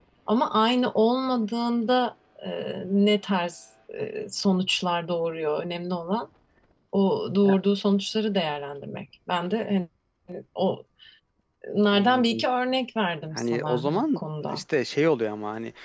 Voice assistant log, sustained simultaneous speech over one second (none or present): present